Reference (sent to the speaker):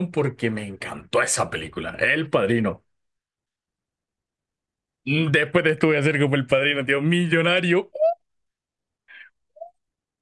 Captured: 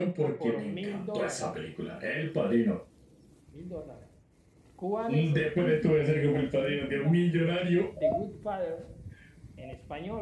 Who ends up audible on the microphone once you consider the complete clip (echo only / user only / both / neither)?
both